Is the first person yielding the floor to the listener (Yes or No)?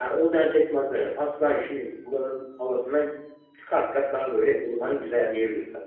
Yes